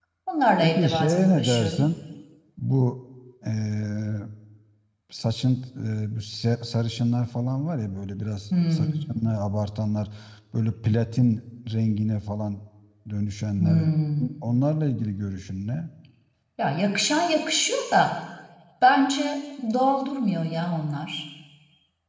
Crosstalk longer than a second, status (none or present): present